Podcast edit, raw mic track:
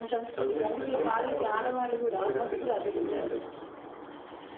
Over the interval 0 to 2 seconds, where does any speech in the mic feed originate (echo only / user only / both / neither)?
echo only